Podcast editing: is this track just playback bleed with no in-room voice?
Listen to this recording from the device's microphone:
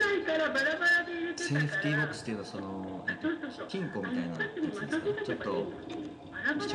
No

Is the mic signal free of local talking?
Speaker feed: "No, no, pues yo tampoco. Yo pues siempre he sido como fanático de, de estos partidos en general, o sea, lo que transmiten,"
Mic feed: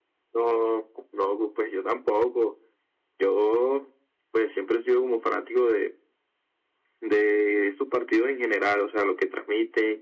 Yes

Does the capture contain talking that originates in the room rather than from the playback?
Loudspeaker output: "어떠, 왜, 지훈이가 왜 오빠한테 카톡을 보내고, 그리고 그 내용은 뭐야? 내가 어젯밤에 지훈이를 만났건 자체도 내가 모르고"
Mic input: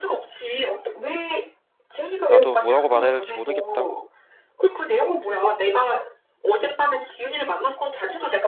Yes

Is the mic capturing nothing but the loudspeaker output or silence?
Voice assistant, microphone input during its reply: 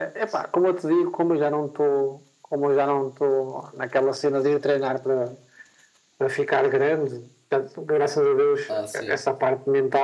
No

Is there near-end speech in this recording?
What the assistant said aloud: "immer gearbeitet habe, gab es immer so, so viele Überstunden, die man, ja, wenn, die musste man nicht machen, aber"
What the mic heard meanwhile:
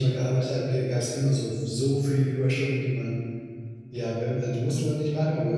No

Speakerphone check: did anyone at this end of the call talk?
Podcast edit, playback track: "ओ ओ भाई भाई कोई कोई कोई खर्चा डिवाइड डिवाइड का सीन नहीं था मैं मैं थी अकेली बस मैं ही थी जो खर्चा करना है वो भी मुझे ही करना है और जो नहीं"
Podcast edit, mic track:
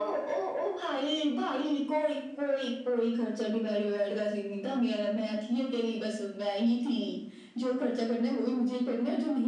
No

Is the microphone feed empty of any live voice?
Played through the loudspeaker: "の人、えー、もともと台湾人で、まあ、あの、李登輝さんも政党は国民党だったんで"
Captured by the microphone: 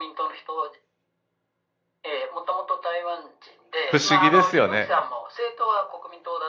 No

